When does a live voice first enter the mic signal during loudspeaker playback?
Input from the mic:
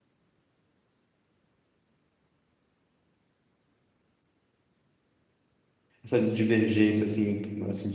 6.0 s

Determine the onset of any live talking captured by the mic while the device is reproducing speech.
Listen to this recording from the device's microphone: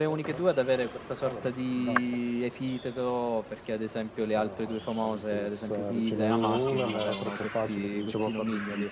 none

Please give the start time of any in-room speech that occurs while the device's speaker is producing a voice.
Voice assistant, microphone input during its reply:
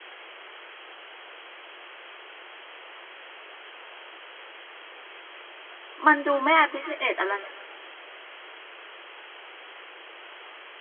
6.0 s

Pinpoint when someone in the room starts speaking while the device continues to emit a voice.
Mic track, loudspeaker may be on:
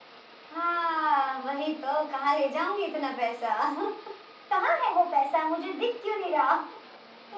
none

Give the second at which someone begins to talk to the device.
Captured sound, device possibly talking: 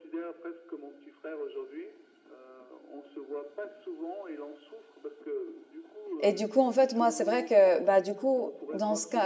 6.2 s

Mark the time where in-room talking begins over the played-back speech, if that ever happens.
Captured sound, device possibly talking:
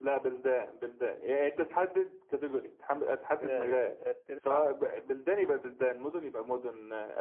3.4 s

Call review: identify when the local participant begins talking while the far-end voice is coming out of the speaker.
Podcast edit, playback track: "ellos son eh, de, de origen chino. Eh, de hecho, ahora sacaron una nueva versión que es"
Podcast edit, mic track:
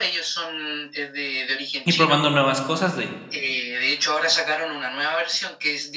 1.8 s

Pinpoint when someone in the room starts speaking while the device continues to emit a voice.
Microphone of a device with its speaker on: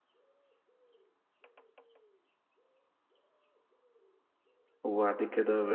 4.8 s

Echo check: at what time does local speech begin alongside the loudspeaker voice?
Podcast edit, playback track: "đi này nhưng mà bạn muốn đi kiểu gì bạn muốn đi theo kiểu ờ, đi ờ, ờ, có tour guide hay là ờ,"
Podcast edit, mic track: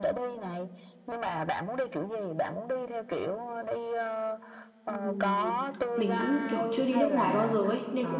4.8 s

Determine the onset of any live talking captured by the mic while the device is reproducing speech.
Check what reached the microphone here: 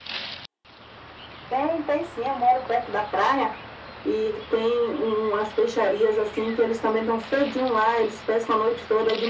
none

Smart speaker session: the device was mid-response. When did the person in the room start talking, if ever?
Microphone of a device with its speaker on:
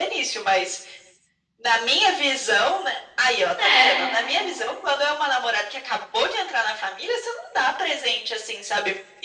3.6 s

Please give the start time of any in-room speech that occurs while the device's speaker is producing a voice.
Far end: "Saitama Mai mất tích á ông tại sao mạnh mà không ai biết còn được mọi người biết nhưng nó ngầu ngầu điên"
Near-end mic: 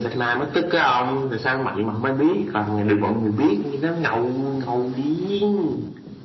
none

